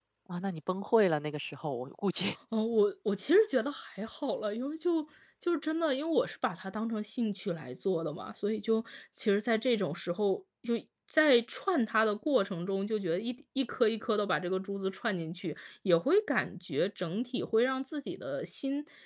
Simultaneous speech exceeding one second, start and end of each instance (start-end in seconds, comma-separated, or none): none